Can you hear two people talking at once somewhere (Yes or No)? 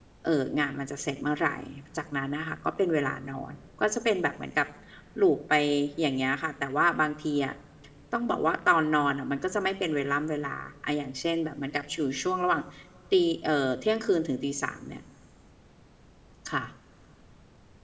No